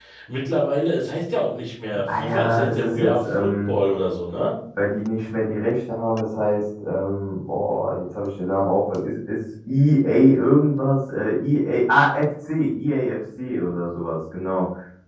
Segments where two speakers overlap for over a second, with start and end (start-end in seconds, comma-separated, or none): 2.2-3.8